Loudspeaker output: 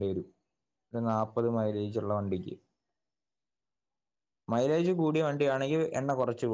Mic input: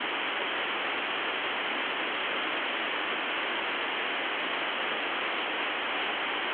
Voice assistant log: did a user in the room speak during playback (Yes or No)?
No